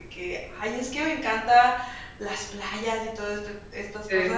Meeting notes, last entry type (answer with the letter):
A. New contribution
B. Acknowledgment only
B